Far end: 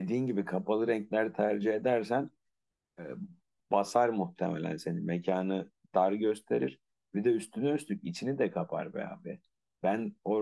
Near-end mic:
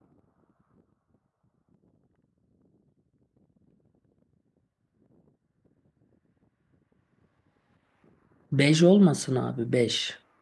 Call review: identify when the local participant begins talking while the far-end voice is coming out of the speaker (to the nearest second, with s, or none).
9 s